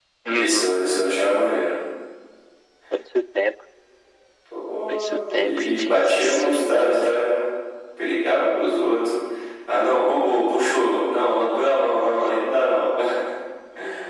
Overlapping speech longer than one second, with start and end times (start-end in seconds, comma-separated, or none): 4.9-7.2